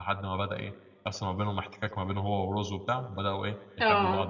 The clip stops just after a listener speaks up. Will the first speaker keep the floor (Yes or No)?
Yes